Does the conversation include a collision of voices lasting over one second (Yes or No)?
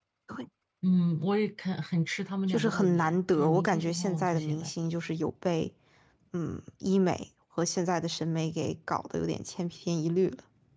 Yes